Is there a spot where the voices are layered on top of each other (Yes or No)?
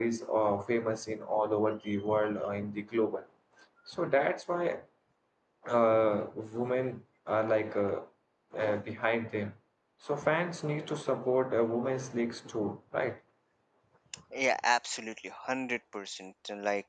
No